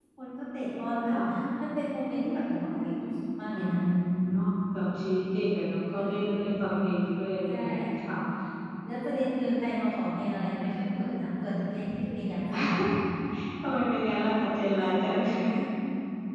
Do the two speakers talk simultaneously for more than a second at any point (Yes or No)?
No